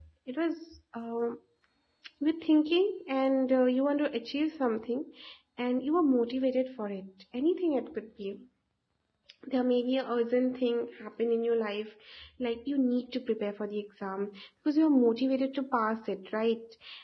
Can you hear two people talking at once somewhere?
No

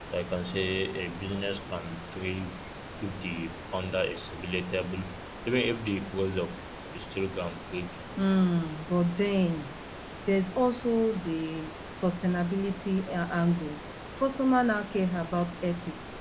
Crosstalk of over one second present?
No

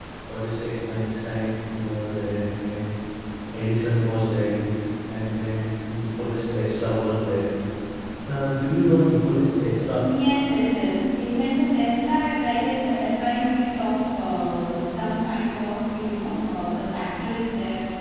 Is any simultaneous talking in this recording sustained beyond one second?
No

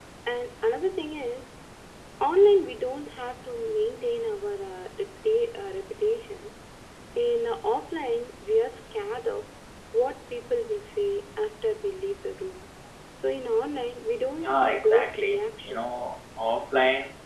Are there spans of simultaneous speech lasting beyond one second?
Yes, from 14.4 s

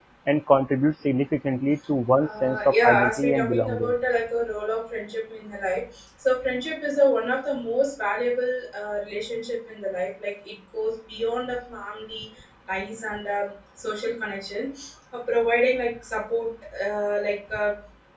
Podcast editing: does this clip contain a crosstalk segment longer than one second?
Yes, from 2.2 s

